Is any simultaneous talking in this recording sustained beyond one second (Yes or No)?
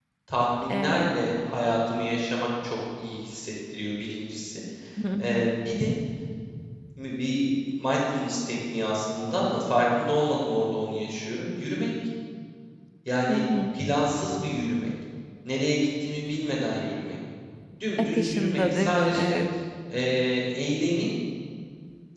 Yes